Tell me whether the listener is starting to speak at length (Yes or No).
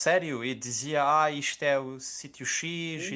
Yes